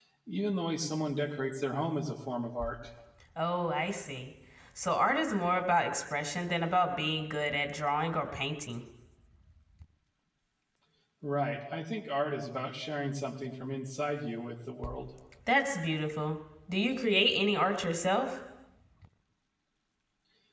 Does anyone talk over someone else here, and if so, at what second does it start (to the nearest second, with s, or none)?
none